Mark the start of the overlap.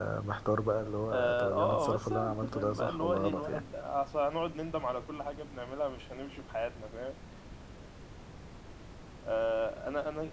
1.1 s

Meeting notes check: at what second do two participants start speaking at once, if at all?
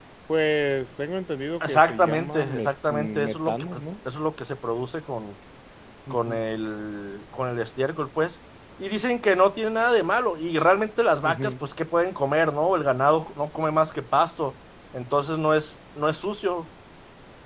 1.6 s

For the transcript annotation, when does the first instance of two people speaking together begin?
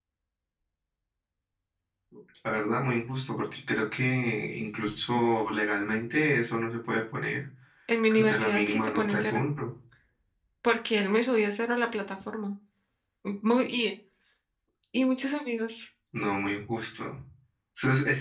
8.1 s

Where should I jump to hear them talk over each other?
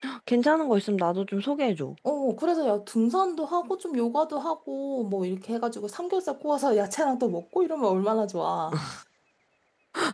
none

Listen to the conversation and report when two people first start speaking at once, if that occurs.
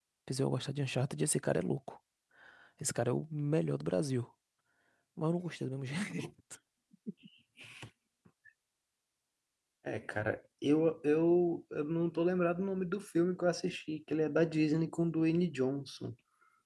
none

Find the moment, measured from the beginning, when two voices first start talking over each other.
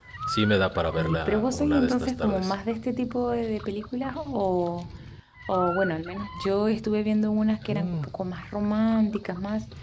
1.0 s

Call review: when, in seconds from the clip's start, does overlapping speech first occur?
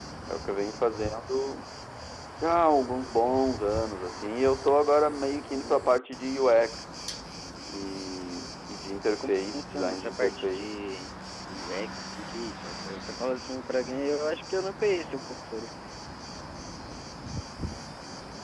9.1 s

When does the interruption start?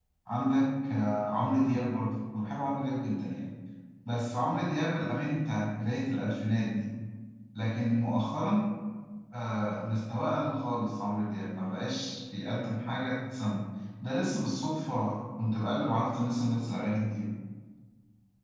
none

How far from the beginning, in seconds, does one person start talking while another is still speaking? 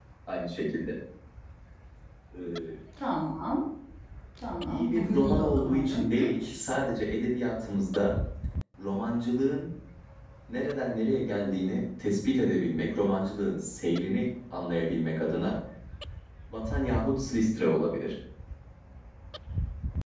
4.7 s

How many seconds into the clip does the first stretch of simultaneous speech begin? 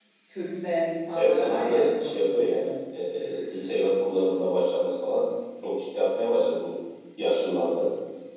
1.1 s

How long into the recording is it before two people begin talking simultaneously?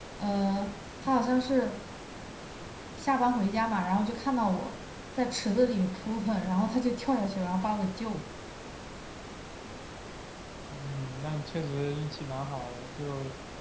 none

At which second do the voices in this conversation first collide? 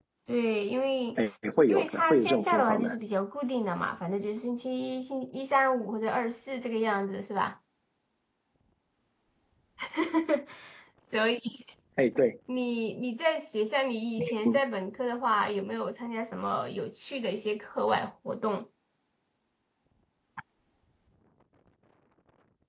1.7 s

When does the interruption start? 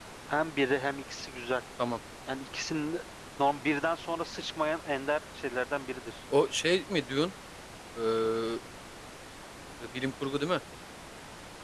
none

